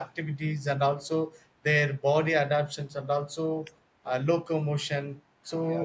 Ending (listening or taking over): listening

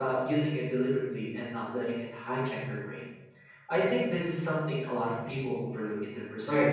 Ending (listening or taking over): taking over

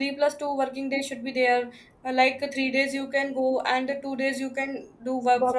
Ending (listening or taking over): taking over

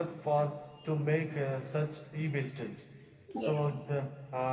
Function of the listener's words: listening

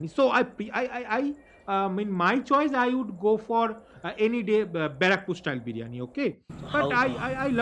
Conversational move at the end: listening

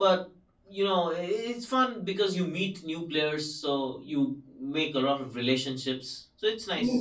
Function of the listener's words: taking over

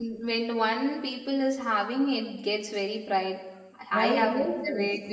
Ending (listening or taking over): taking over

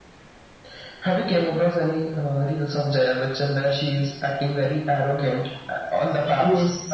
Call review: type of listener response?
taking over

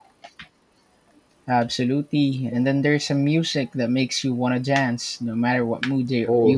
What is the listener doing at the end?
taking over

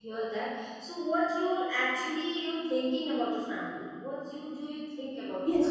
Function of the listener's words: taking over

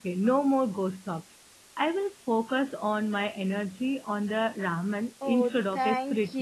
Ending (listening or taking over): taking over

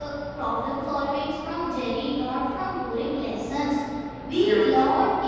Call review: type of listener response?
listening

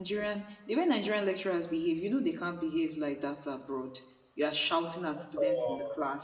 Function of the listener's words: listening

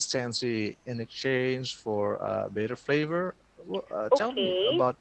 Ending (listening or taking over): taking over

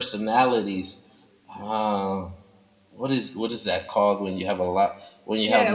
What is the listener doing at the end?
taking over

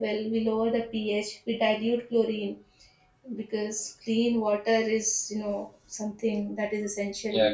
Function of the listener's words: taking over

